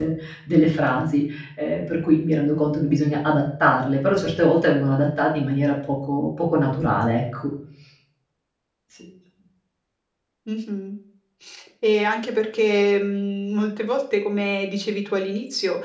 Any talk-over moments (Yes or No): No